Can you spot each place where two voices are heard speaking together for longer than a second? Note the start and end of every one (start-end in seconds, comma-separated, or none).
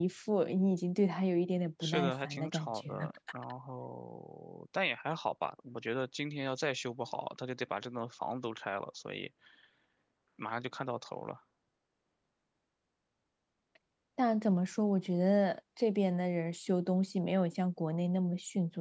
1.8-3.1